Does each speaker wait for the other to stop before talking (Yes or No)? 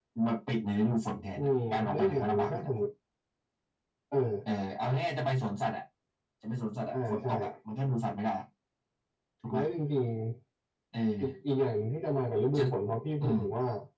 No